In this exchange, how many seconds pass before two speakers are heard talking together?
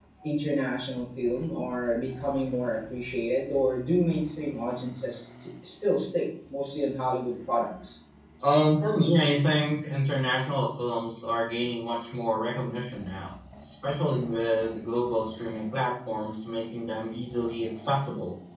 none

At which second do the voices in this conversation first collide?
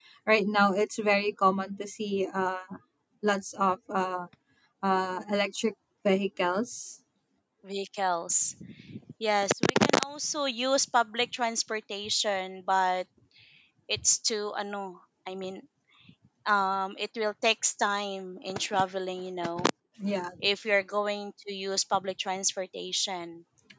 none

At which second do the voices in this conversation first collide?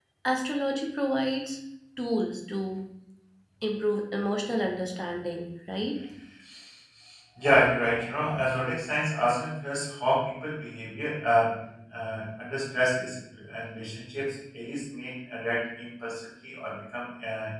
none

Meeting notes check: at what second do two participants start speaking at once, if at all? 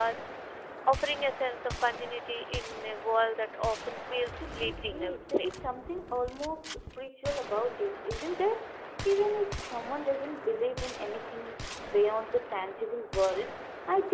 4 s

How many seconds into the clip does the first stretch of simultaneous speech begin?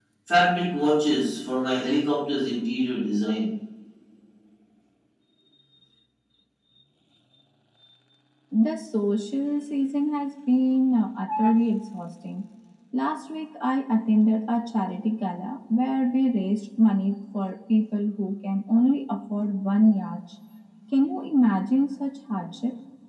none

